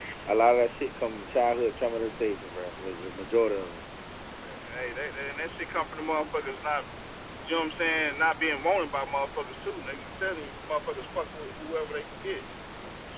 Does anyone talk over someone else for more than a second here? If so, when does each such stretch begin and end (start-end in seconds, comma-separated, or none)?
none